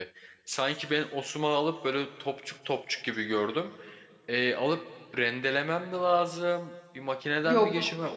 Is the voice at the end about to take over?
No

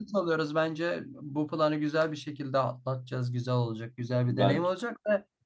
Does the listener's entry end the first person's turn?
No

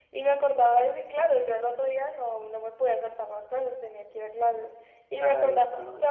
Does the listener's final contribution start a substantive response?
No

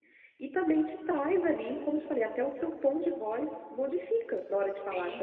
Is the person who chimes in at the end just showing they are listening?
No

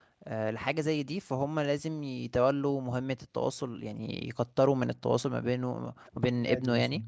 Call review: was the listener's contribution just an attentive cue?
Yes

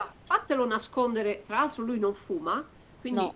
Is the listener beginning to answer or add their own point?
No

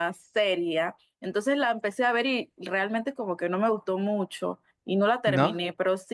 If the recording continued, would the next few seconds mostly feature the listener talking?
No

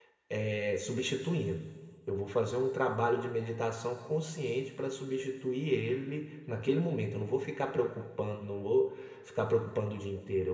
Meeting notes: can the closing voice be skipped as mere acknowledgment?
Yes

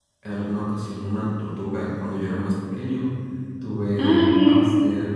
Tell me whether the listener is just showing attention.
Yes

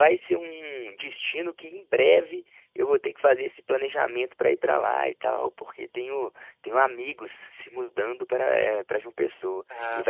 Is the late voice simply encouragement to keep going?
Yes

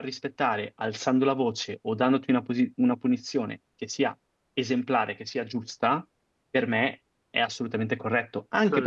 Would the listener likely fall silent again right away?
Yes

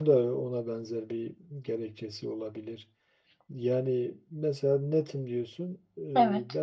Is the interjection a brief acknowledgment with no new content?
Yes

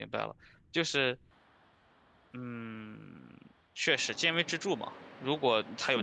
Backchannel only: Yes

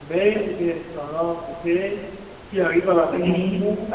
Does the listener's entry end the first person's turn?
No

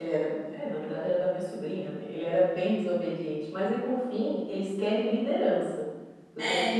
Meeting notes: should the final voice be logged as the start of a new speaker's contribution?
No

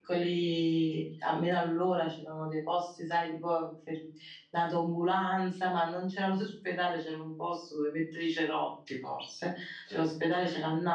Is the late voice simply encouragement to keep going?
Yes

